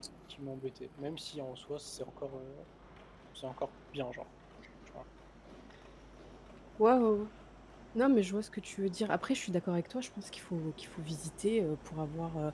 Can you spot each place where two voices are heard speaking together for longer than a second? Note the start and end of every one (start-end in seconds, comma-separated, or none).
none